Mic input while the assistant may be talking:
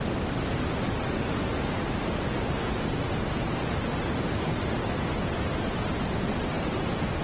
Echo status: none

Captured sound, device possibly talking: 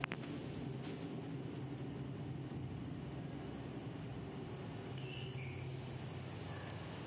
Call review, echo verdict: none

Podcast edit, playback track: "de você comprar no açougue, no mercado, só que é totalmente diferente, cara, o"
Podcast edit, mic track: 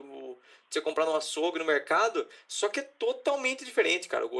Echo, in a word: present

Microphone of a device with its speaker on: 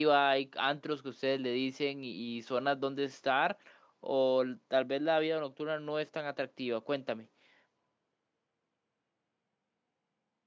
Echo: none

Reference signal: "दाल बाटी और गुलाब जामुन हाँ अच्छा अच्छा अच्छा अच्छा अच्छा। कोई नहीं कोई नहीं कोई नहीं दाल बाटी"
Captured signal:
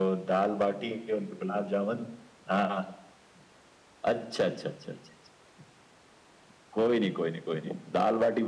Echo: present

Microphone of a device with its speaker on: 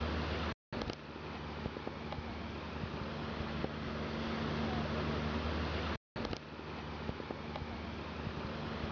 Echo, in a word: none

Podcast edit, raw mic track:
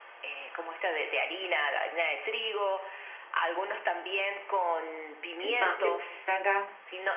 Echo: present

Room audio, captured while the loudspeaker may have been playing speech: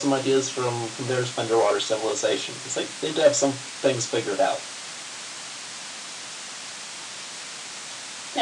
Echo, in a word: present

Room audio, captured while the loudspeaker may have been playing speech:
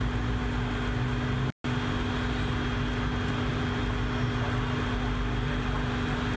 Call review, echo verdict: none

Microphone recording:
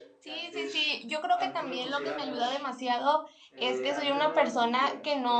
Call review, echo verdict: present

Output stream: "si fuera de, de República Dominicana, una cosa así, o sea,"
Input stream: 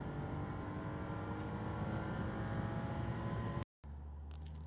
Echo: none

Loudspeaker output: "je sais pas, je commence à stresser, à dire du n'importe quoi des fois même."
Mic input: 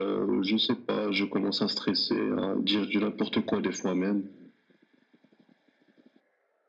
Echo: present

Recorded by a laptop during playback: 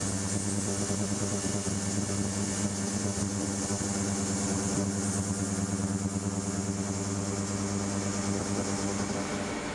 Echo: none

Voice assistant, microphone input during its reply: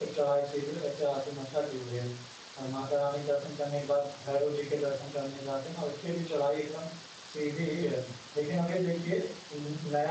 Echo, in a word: none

